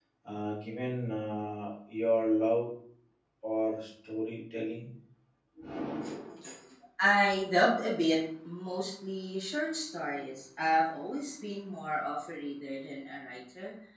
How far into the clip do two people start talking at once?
none

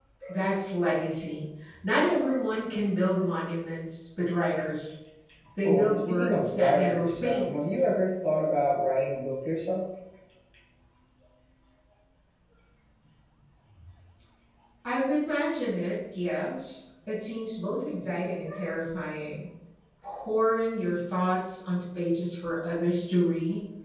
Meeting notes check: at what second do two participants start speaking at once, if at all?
5.7 s

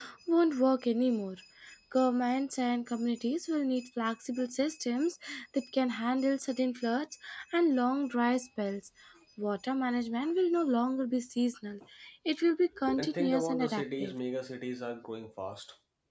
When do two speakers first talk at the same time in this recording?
12.9 s

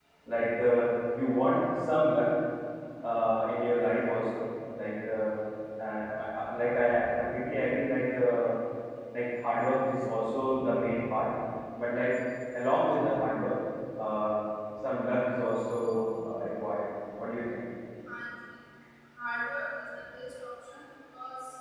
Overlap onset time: none

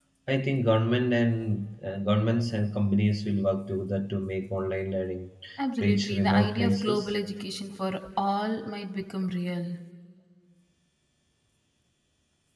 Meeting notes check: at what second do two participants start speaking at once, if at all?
5.8 s

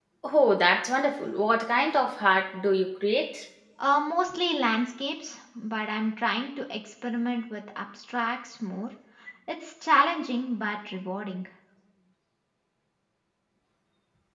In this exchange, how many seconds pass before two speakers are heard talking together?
none

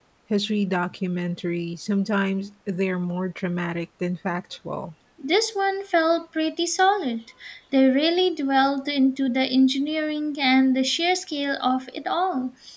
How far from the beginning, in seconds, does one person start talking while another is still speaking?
none

